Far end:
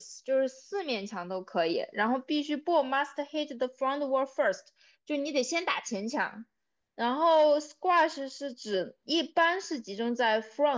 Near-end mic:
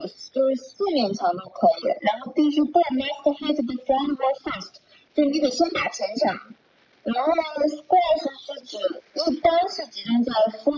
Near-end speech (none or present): none